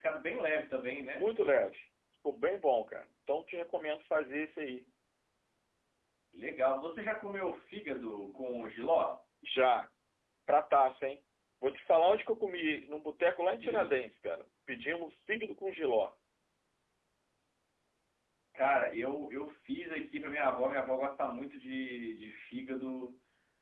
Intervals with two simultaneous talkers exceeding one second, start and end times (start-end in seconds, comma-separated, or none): none